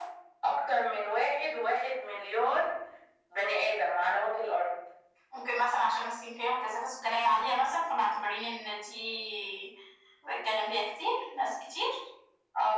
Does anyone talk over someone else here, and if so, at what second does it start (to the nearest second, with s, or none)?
none